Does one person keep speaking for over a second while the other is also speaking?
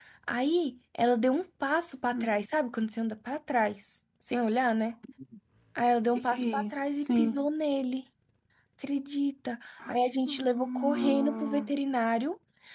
Yes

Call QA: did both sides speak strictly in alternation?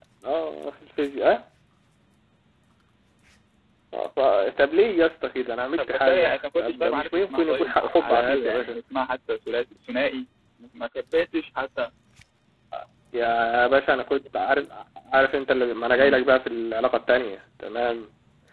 No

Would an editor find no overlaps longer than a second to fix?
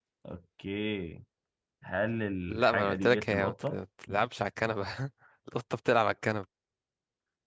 No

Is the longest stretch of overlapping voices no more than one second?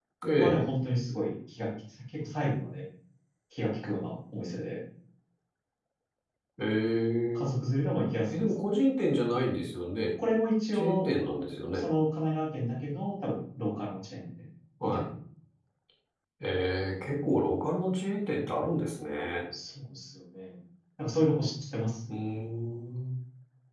Yes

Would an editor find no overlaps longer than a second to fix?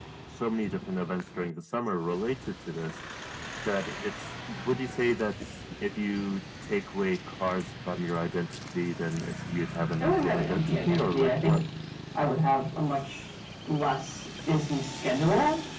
No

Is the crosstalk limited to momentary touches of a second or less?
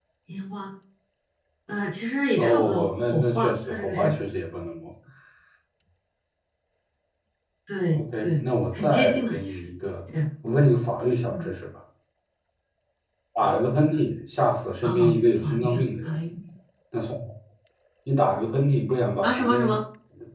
No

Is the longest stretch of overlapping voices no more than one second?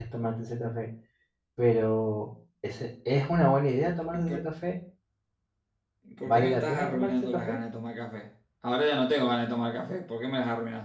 No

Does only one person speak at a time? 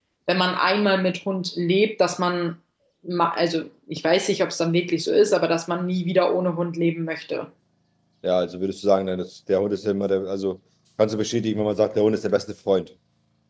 Yes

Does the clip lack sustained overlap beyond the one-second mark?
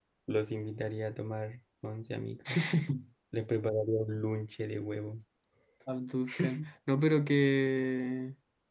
Yes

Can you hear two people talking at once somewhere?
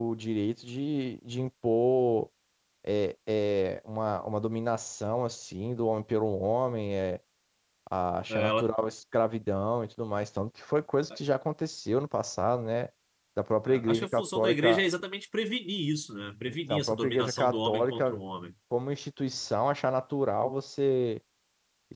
Yes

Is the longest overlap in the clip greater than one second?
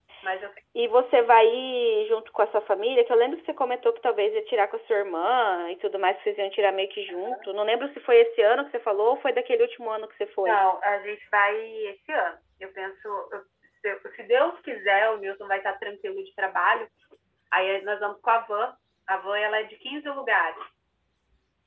No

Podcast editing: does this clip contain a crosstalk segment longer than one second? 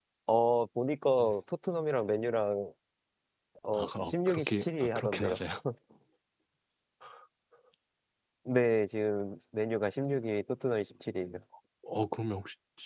Yes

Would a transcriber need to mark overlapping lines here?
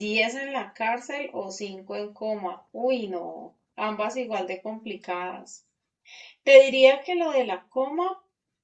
No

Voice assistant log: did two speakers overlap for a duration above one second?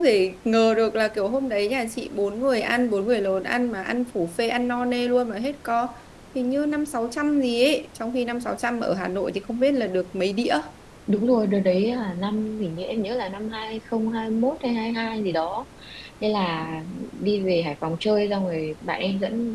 No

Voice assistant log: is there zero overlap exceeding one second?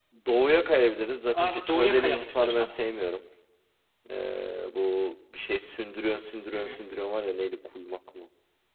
No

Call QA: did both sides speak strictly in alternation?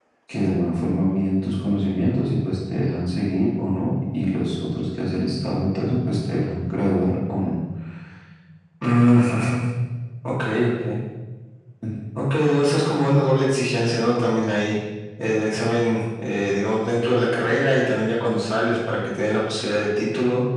Yes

